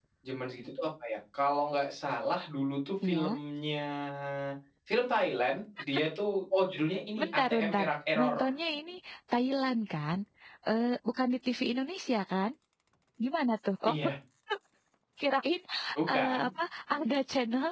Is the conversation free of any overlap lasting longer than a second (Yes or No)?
No